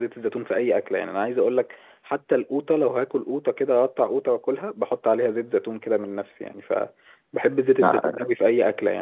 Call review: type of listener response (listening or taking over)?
listening